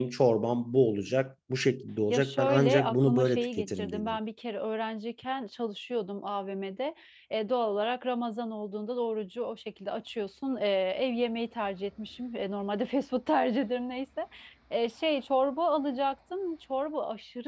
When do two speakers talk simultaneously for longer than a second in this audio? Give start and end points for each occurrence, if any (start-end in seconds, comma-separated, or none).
2.1-4.2